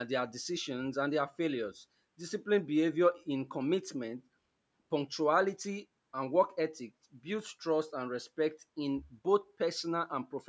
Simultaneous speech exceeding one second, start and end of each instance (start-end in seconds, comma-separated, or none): none